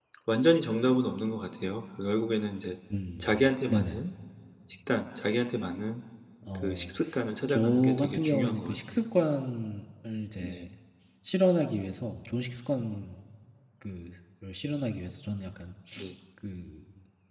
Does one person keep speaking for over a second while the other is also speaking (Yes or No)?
Yes